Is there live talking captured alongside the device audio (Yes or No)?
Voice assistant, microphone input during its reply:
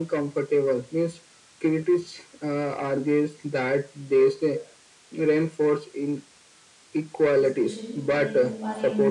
Yes